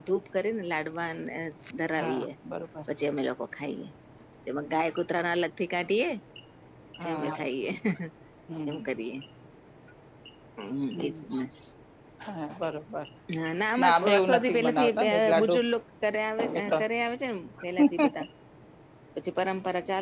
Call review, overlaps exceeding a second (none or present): present